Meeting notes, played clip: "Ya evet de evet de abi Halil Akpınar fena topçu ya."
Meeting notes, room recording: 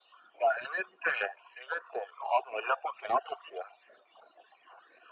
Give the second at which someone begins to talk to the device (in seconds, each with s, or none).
none